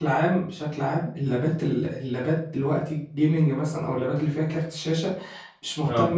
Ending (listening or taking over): listening